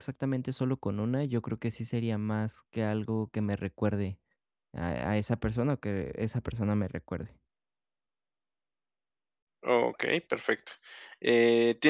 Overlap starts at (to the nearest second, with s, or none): none